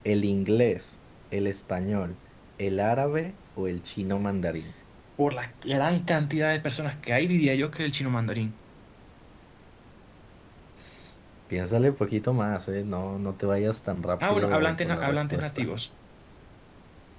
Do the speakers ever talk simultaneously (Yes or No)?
Yes